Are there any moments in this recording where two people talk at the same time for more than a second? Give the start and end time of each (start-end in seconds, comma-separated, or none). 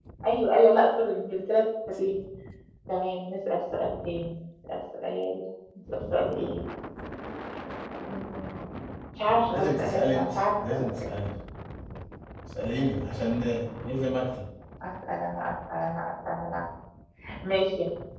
9.5-11.1